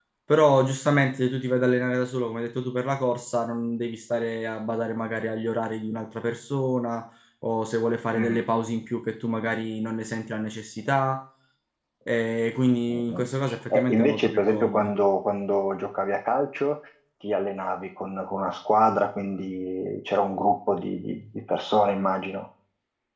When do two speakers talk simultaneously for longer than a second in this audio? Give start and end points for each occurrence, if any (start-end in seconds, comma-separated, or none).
13.7-14.9